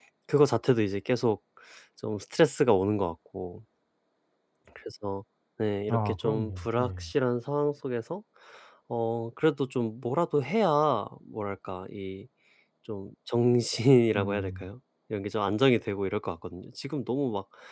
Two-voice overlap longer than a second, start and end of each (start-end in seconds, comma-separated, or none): 5.9-7.1